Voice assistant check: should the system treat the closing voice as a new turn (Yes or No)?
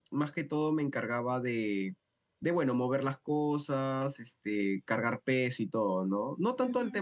Yes